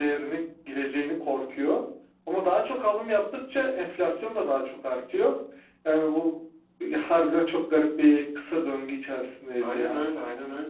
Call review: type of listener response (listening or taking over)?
taking over